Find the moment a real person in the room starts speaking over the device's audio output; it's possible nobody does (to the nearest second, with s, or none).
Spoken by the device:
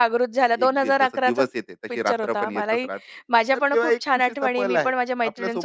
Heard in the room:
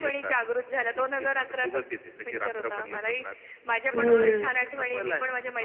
4 s